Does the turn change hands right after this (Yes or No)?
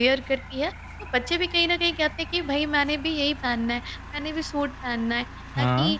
No